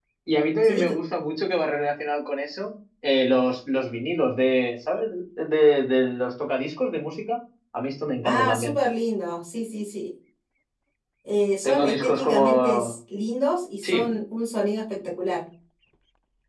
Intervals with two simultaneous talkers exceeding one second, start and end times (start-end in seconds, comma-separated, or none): 11.6-12.9